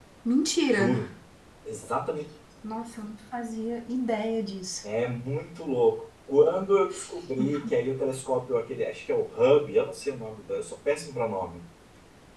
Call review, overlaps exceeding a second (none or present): none